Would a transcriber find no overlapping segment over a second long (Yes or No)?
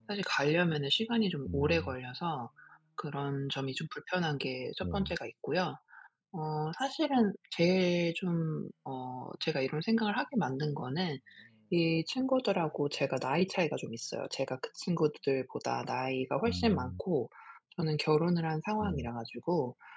Yes